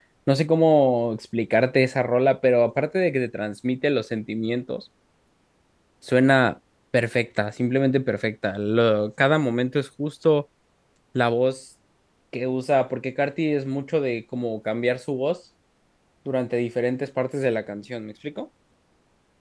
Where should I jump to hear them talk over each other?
none

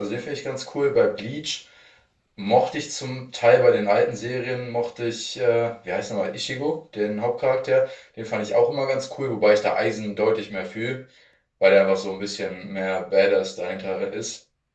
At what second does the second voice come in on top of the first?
none

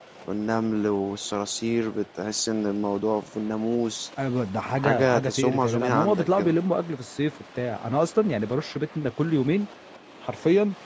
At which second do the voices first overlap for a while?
4.8 s

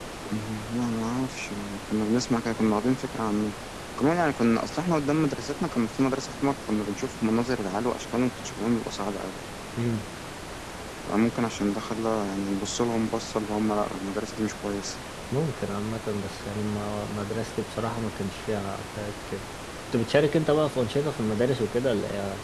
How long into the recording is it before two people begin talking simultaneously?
none

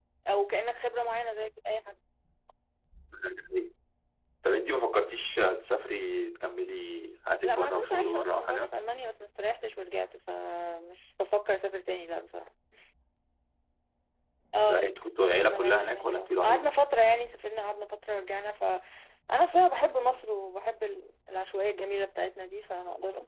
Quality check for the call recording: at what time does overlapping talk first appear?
7.4 s

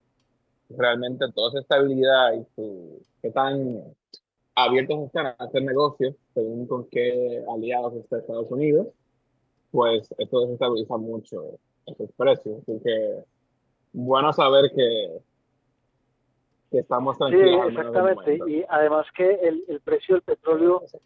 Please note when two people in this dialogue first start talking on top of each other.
17.2 s

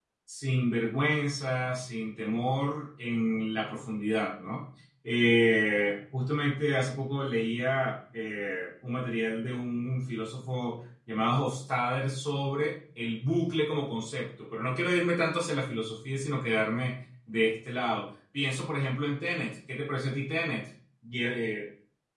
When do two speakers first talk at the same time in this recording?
none

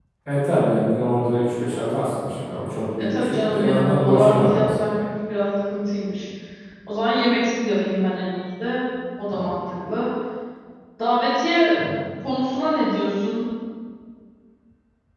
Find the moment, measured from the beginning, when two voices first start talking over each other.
3.0 s

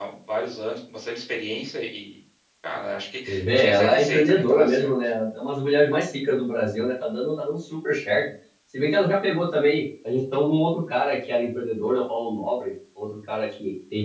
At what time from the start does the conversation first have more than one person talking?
3.3 s

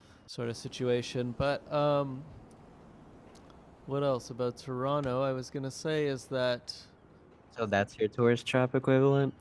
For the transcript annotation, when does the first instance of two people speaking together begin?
none

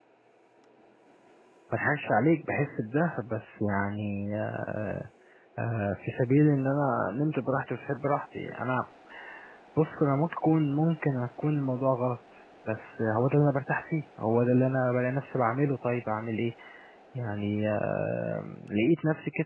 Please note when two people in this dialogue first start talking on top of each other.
none

